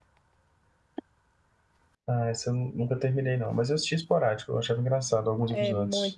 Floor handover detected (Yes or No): Yes